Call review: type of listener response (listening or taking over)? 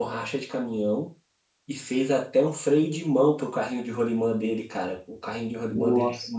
listening